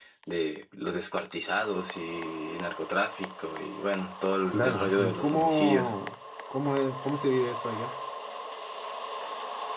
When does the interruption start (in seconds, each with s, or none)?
4.5 s